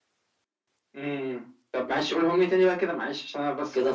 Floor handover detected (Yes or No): Yes